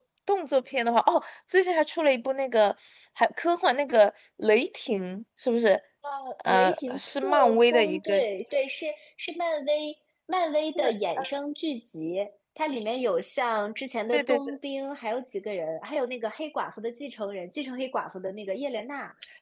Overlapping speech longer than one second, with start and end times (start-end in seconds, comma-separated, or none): 6.5-8.2